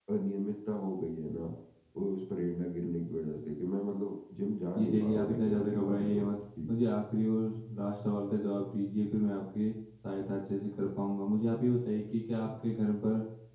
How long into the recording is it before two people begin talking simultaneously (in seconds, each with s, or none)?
4.8 s